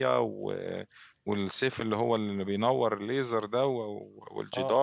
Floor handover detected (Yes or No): Yes